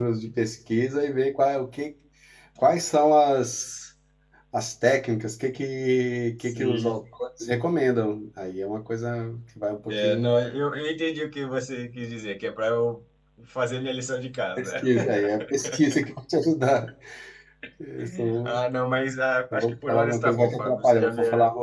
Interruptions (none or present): present